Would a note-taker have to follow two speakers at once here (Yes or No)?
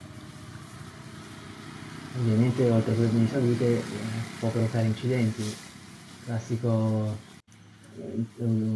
No